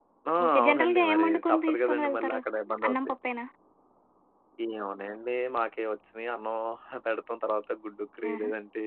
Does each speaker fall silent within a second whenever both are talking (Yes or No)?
No